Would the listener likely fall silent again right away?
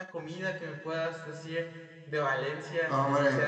No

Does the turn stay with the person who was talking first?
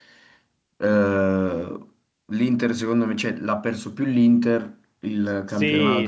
No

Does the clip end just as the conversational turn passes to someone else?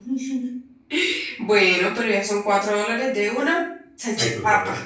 Yes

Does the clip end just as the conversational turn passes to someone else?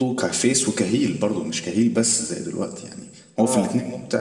No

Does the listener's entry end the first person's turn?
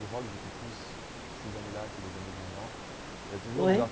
No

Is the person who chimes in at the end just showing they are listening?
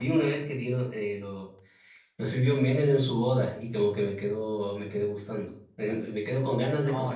No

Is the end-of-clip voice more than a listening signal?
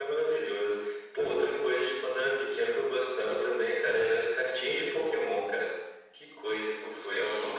Yes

